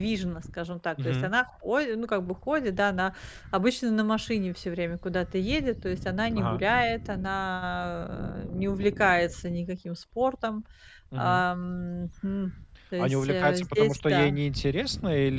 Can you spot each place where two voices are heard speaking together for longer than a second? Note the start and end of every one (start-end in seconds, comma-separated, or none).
13.0-14.4